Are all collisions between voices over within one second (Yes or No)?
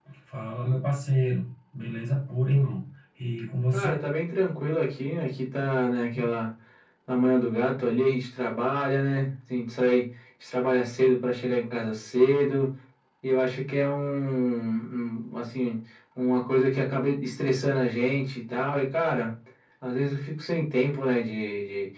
Yes